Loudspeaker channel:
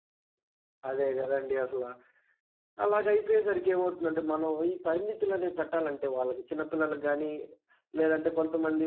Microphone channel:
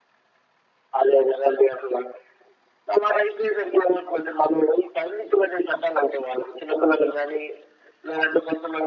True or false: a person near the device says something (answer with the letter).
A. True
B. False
B